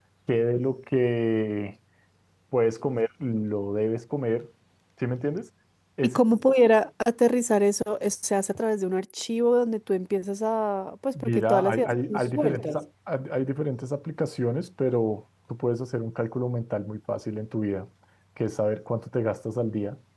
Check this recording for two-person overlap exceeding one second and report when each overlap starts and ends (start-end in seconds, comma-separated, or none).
11.2-12.8